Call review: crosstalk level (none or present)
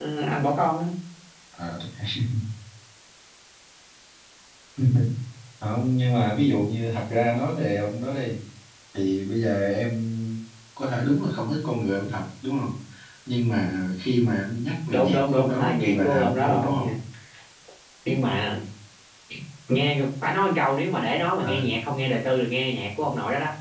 present